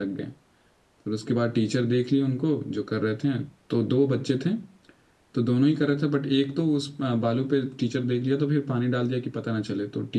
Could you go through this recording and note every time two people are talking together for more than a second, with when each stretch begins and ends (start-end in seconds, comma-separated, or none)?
none